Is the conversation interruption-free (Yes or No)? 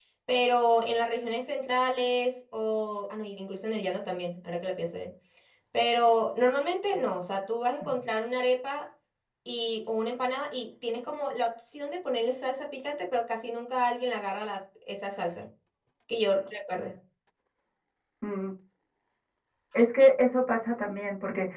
Yes